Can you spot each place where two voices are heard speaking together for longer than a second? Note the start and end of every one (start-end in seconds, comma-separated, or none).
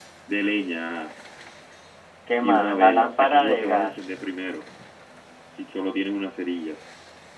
2.4-3.9